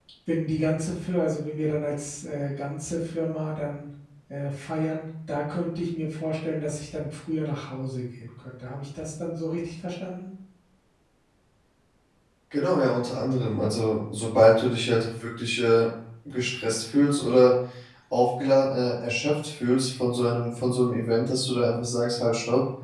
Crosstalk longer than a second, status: none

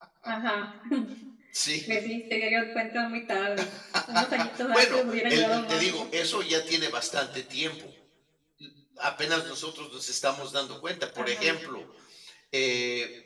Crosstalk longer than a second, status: present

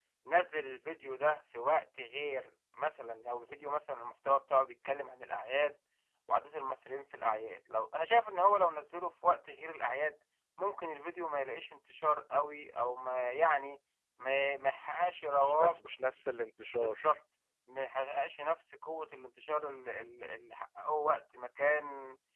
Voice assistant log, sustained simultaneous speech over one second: none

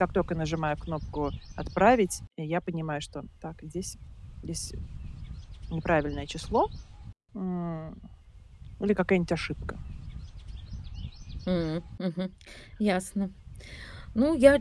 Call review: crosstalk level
none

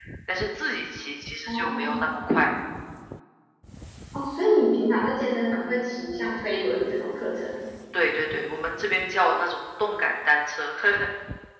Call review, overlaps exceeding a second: none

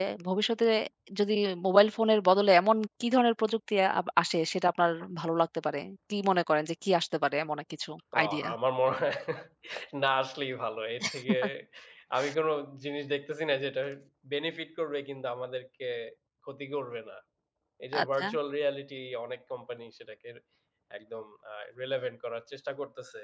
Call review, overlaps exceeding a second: none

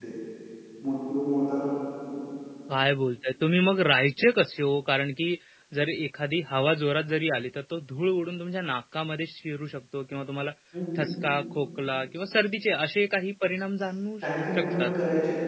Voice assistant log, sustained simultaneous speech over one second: none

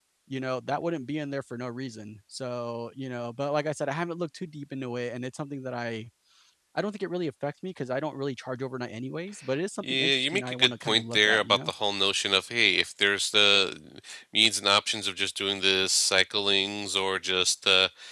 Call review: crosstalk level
present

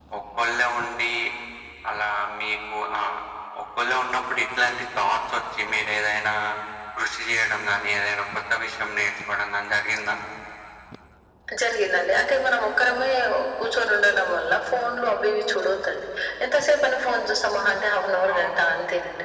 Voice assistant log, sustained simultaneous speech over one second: none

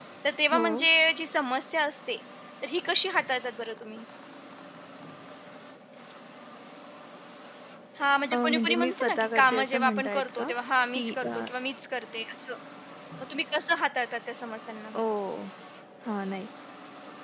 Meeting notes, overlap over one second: present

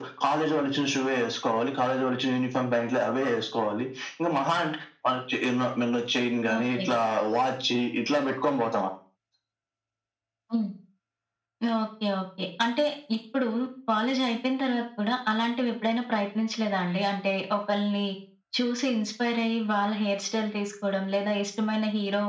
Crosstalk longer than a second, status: none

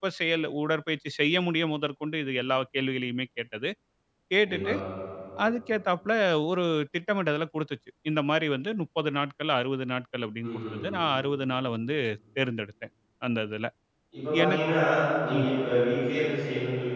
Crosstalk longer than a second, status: none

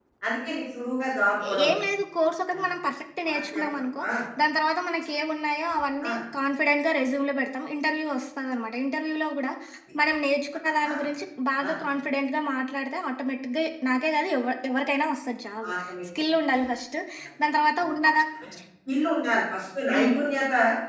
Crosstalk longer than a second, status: none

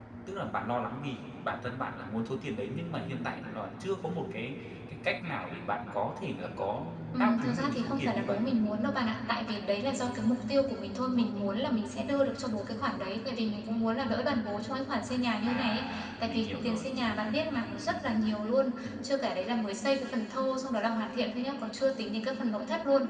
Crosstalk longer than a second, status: present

